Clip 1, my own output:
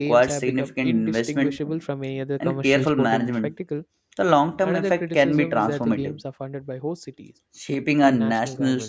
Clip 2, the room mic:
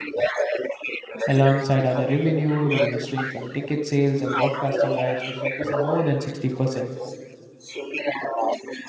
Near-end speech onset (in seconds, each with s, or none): 1.2 s